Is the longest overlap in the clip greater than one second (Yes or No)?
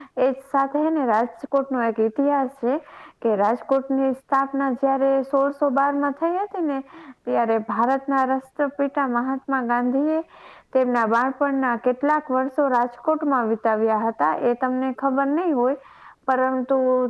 No